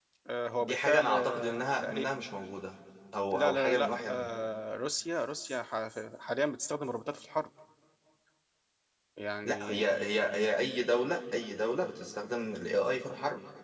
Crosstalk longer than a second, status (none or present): present